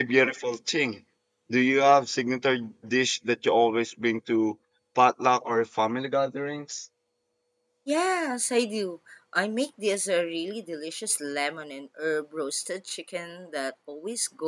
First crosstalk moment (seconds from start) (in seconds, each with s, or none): none